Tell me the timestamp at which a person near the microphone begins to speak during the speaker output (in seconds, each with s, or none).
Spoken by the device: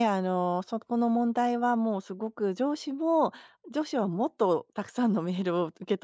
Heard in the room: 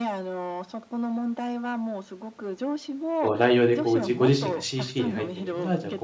3.2 s